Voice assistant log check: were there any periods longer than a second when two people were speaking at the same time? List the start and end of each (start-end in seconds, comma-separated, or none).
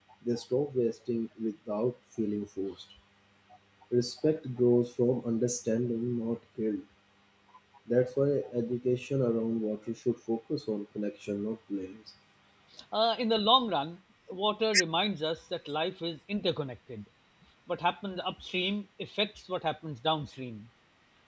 none